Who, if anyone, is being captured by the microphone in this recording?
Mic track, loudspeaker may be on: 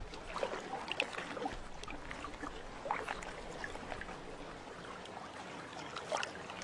neither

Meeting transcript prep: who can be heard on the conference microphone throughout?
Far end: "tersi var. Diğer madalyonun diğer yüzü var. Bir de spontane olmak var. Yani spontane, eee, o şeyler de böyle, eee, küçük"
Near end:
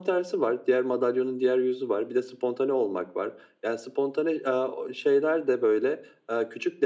echo only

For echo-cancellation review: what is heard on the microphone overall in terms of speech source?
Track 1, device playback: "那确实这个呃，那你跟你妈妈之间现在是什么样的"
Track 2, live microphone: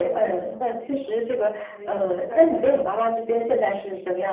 both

